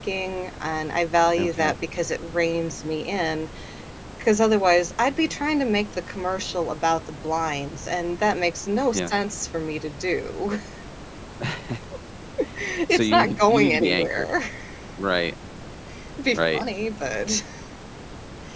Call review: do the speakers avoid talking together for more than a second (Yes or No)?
No